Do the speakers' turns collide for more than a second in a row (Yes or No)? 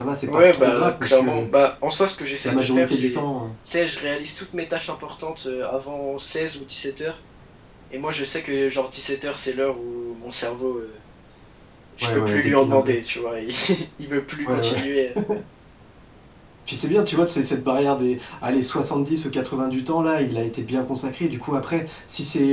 Yes